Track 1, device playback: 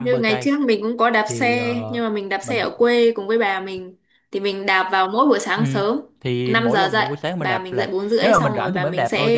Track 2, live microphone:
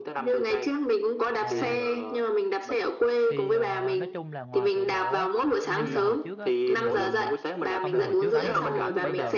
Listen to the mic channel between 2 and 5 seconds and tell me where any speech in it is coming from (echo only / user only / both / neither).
both